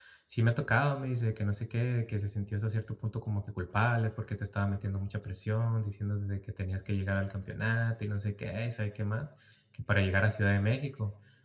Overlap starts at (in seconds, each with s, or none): none